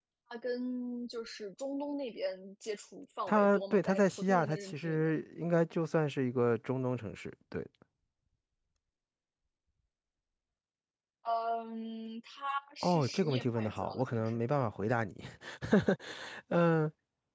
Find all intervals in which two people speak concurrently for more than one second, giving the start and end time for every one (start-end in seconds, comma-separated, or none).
3.3-5.1, 12.8-14.4